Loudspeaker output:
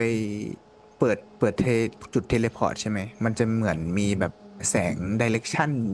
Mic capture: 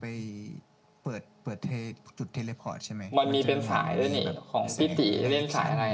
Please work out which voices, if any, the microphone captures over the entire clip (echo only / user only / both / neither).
both